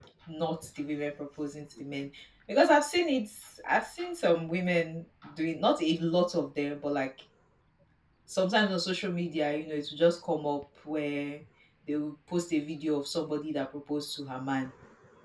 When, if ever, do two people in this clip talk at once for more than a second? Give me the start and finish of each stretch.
none

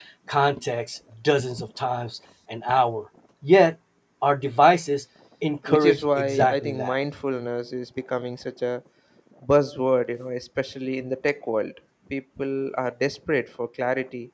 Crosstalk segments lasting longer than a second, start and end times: 5.7-7.0

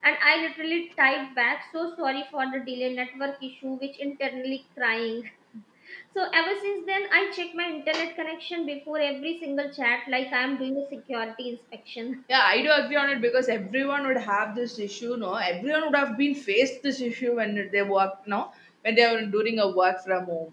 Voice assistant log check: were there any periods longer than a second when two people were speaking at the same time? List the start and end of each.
none

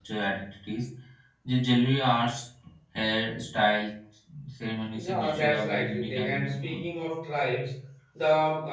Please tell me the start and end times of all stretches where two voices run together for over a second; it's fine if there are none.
5.1-6.8

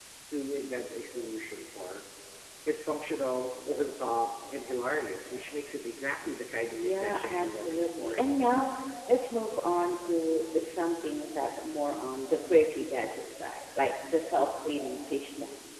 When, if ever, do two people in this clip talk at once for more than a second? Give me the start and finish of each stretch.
6.7-8.4

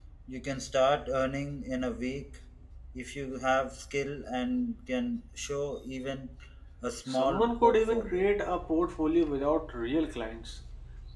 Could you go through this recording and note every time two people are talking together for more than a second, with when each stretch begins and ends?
7.1-8.3

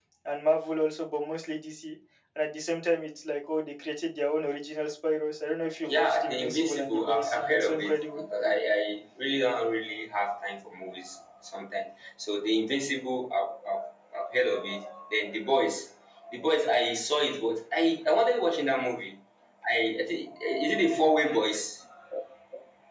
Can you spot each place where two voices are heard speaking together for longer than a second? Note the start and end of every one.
5.9-8.2

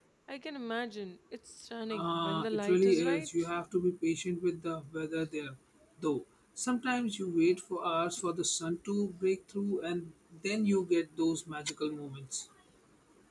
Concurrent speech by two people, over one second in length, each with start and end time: 1.9-3.5

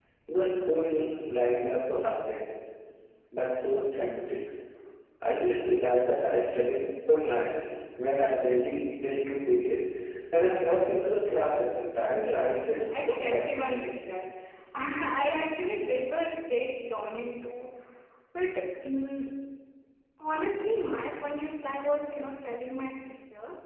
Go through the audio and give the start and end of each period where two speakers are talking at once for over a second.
12.2-13.9

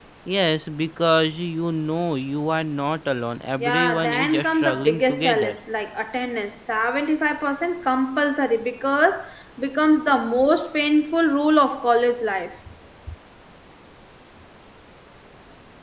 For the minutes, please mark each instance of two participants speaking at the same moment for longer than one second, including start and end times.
3.6-5.6

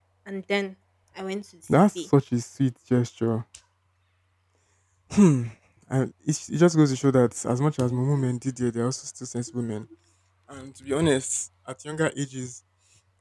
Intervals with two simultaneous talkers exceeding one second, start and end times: none

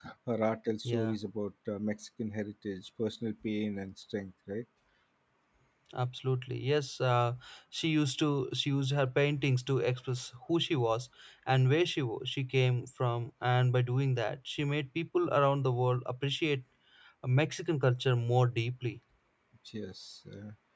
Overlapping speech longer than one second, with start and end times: none

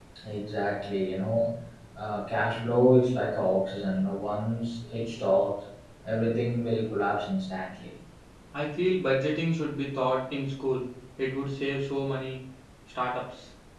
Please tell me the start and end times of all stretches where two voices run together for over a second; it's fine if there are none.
none

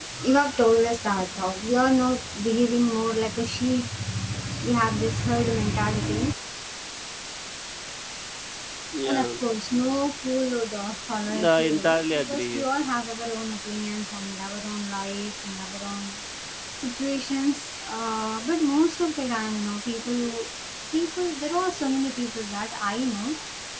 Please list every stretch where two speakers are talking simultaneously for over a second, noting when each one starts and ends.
11.3-12.6

